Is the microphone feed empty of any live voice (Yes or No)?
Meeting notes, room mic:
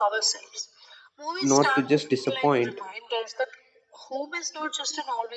No